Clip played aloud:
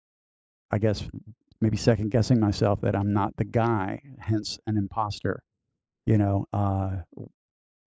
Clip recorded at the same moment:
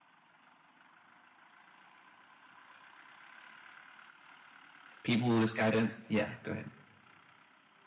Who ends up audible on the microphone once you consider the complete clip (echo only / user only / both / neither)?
user only